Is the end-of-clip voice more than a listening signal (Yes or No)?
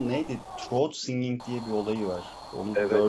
Yes